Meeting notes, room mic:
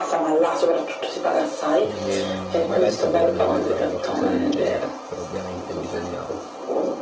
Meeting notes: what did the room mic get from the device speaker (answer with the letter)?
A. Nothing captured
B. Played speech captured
B